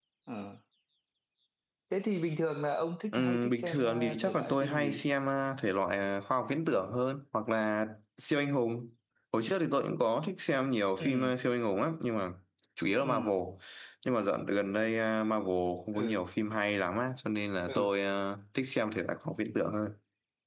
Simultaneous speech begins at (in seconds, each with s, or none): 3.1 s